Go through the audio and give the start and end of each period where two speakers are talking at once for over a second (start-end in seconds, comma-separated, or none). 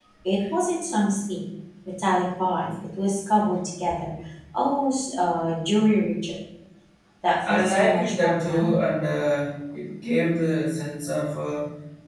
7.5-8.9